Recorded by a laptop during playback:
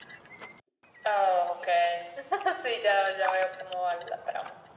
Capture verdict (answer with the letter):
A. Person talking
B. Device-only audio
B